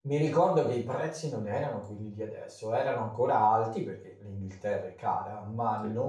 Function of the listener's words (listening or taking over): listening